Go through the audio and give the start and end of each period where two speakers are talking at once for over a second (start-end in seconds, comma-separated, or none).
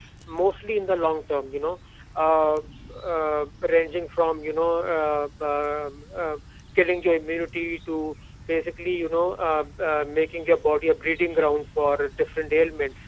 none